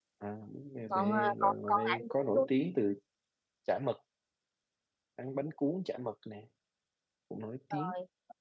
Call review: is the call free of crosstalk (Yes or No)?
No